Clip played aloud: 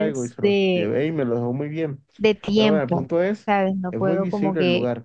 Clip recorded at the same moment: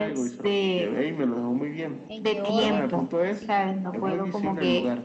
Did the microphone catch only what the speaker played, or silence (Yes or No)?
No